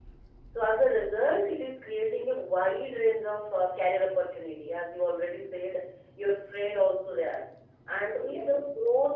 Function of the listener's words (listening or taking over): listening